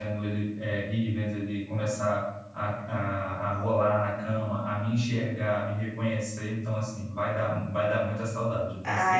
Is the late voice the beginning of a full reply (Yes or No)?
Yes